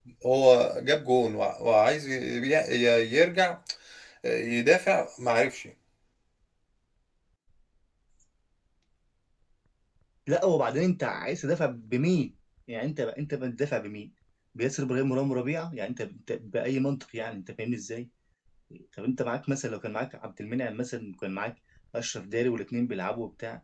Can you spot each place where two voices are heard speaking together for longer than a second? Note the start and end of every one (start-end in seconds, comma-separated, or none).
none